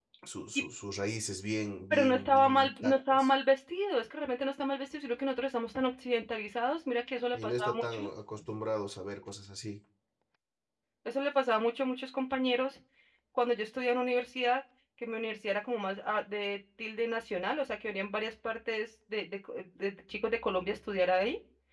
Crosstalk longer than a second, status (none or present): present